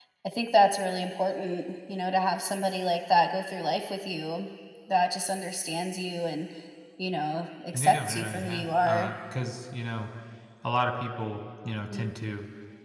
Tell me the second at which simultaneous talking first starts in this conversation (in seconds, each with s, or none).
7.7 s